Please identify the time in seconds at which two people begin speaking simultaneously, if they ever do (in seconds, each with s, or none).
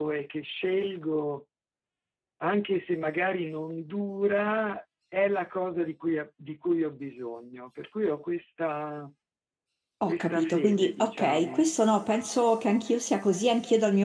10.1 s